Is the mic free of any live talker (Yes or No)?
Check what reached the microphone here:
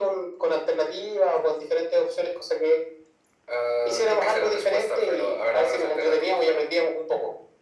Yes